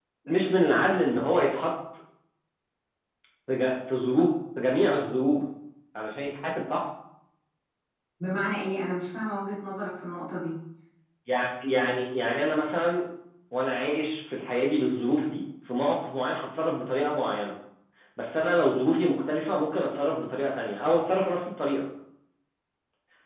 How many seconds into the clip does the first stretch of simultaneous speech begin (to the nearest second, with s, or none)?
none